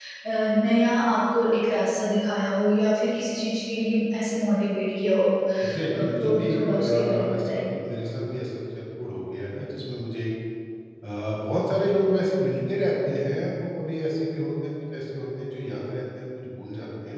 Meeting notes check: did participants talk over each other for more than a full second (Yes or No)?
Yes